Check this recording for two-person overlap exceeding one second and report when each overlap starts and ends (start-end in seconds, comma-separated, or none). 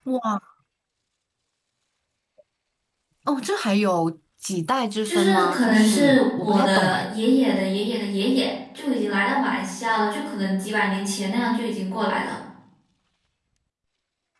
5.1-7.0